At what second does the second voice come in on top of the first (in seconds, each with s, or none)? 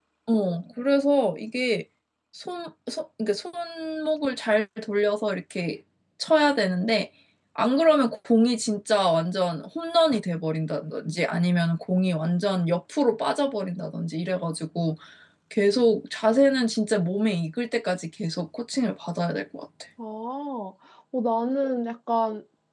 none